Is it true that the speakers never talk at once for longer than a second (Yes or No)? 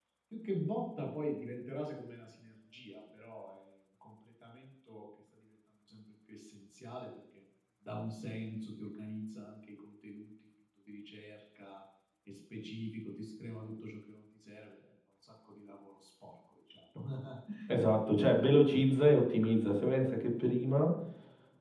Yes